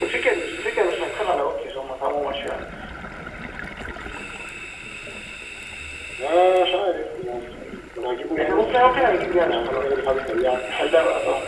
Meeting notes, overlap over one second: present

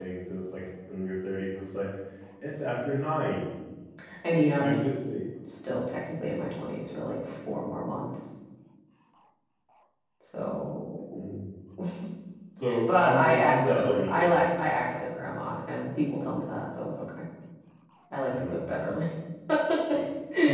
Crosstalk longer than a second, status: present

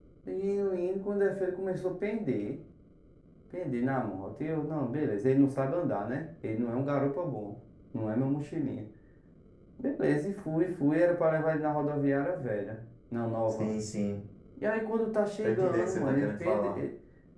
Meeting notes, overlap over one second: present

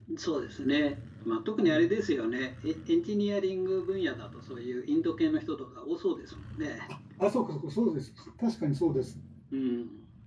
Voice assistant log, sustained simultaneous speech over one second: none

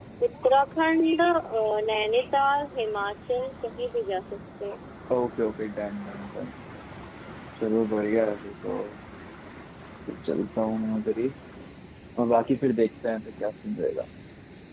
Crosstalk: none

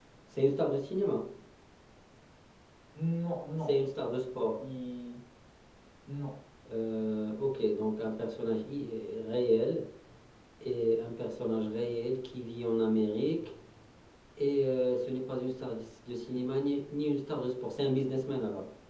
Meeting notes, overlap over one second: none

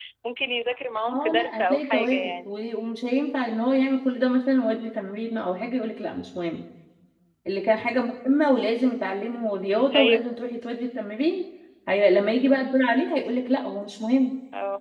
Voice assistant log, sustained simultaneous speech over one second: present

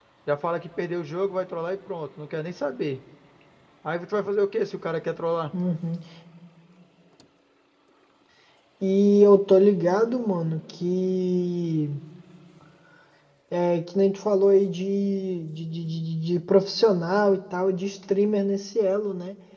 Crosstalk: none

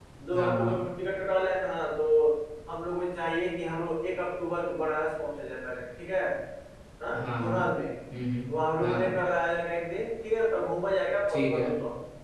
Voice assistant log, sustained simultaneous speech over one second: none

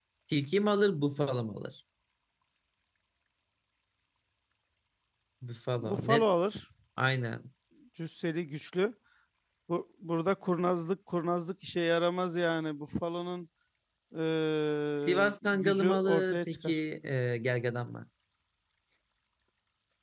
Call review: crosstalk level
present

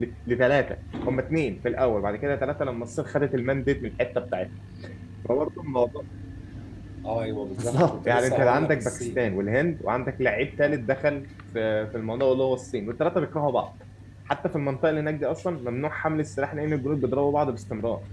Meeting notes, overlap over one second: present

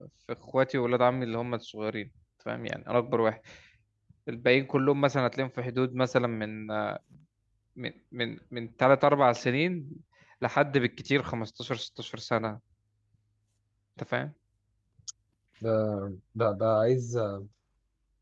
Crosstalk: none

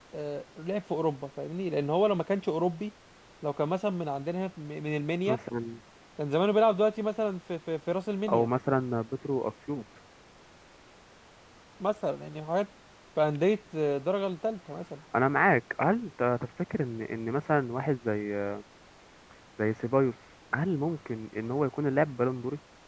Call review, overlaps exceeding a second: none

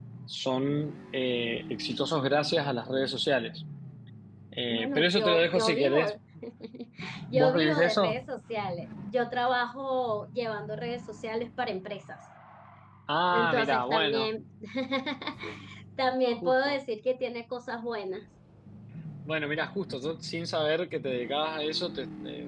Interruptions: present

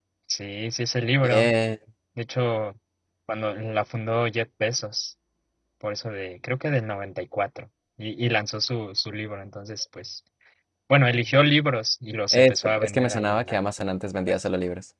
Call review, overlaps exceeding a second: present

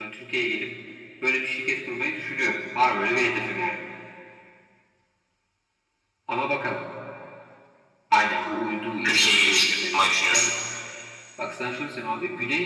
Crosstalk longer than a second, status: present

